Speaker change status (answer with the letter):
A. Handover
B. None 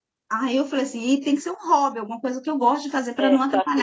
A